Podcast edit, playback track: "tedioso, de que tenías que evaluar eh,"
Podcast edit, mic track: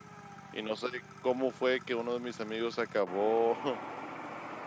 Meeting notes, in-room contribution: present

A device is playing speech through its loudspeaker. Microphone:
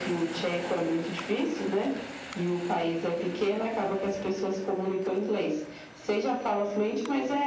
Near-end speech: none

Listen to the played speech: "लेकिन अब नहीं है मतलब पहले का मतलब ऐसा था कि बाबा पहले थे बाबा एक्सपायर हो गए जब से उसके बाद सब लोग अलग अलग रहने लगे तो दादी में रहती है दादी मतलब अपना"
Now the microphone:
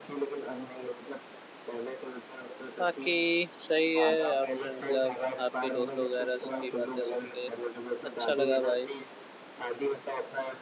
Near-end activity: present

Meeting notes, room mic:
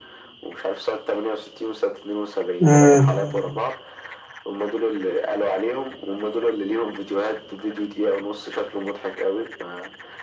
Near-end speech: present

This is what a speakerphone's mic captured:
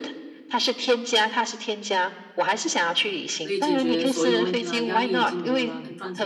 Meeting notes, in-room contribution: present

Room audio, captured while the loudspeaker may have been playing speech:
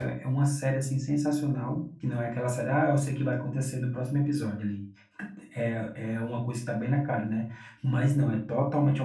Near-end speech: present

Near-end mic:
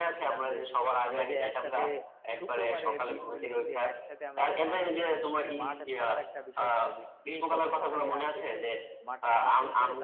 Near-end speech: present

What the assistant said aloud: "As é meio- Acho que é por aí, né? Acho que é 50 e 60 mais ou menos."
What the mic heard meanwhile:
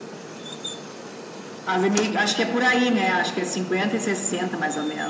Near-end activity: none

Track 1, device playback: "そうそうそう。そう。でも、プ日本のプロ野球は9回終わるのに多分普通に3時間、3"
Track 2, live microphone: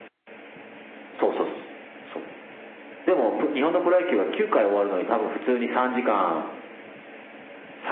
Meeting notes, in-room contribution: none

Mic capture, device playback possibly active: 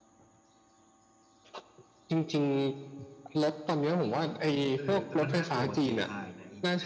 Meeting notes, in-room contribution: present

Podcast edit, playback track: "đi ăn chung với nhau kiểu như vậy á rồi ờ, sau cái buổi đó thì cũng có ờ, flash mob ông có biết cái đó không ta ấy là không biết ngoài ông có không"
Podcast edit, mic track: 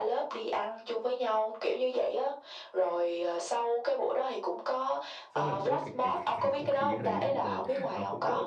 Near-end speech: present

